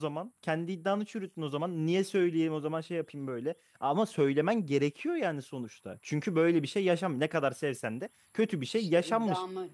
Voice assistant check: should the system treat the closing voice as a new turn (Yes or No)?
Yes